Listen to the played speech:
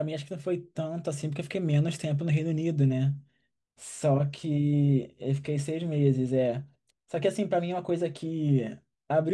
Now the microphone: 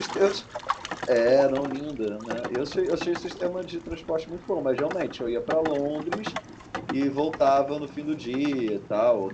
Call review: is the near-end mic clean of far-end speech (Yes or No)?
Yes